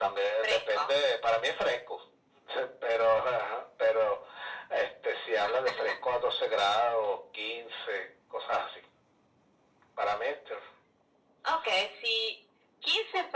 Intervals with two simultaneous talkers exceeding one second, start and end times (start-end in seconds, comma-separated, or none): none